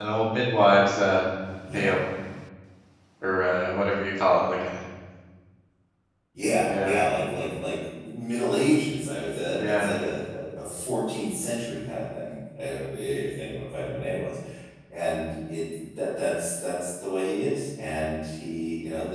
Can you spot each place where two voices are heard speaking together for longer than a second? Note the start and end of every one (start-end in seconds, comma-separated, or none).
none